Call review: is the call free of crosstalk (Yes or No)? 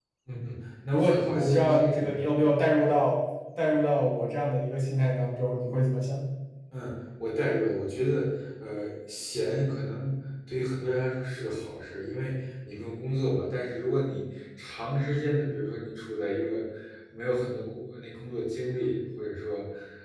No